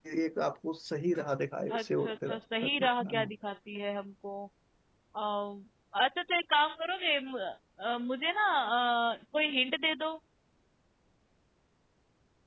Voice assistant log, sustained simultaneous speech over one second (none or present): present